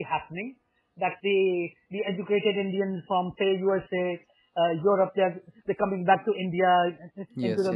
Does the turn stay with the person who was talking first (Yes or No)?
Yes